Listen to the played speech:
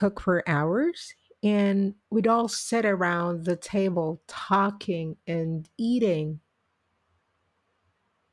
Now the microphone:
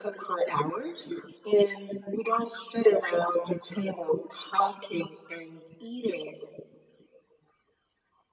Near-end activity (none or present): none